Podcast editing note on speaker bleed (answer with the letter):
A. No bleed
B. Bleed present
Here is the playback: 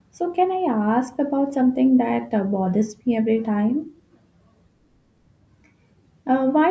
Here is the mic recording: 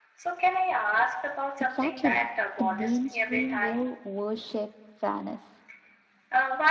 B